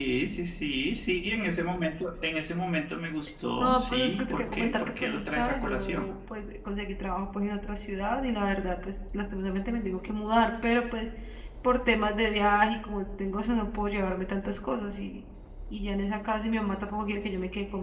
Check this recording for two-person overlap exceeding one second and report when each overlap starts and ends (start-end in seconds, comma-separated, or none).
3.6-6.1